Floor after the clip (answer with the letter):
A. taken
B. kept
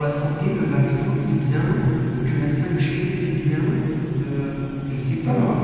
B